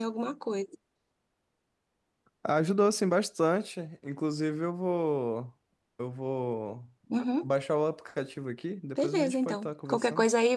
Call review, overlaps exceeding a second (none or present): present